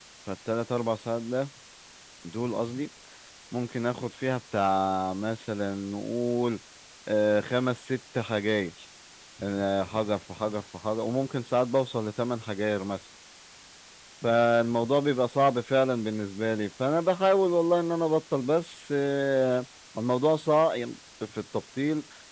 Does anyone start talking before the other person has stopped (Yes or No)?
No